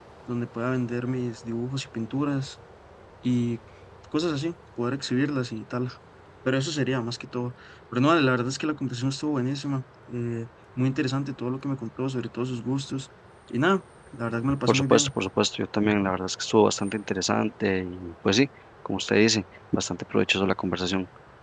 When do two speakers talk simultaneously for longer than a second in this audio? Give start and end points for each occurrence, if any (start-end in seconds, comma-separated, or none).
none